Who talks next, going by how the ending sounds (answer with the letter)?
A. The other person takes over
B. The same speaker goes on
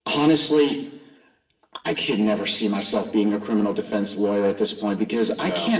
B